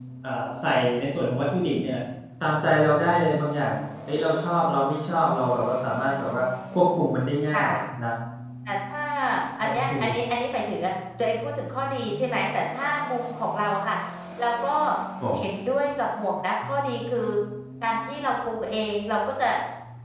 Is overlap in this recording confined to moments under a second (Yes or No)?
Yes